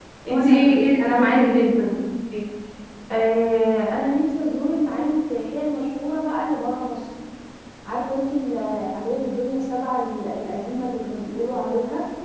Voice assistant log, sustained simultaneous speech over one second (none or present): present